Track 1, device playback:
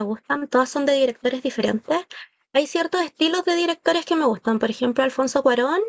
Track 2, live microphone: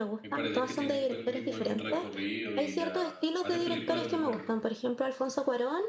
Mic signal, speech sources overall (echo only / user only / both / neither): both